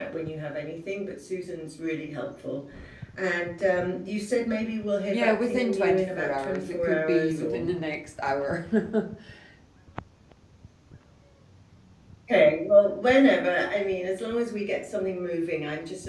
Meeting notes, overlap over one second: present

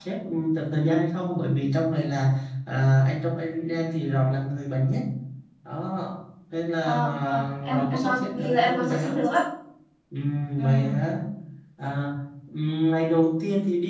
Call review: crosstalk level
present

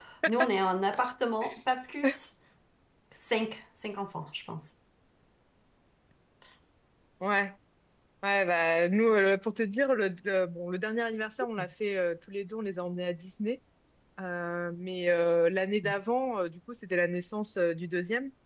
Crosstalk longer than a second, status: none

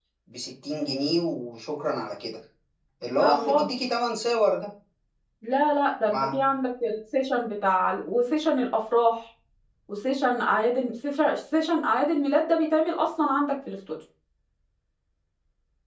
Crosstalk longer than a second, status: none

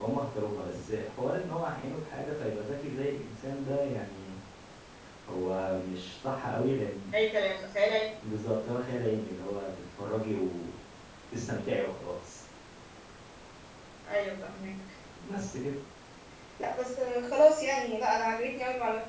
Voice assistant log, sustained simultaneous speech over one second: none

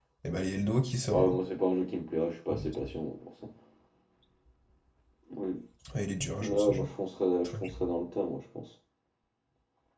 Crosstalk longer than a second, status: none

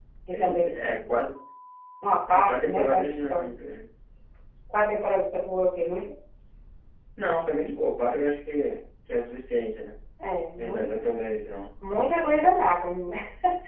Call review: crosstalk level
present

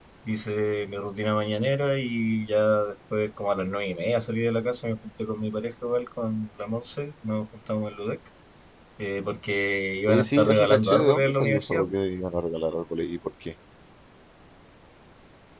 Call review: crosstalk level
present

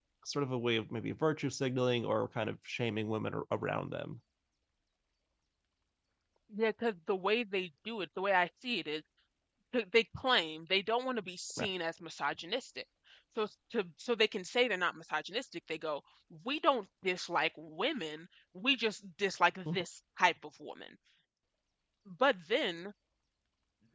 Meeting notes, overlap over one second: none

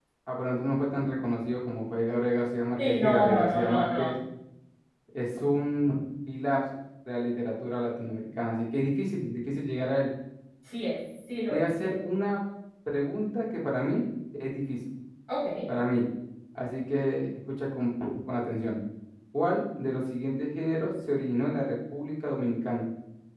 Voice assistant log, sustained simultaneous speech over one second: present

